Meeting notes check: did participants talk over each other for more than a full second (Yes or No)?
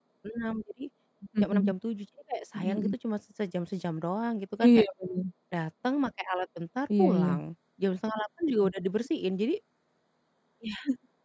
No